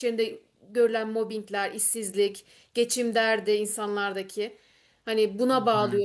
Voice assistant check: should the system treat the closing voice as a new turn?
No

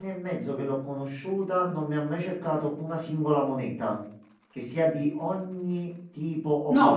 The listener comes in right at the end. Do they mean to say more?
Yes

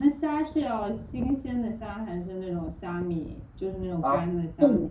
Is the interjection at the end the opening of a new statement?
Yes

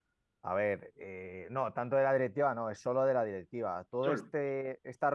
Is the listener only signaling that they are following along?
Yes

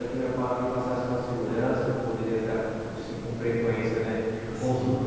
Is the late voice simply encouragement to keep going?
Yes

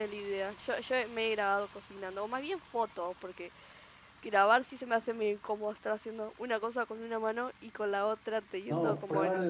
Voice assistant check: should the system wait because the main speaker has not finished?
No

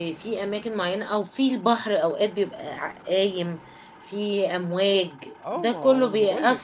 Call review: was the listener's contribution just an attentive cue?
No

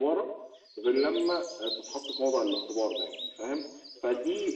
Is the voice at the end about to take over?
No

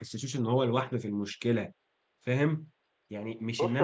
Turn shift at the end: No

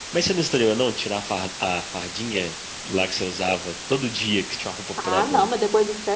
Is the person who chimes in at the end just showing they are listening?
No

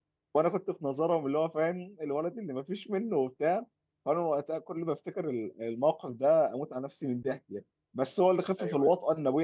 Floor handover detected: No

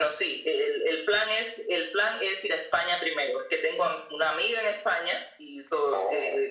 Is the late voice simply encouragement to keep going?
Yes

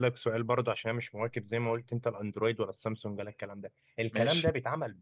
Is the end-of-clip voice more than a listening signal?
No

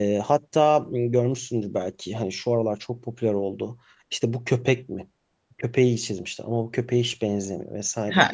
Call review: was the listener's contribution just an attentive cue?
No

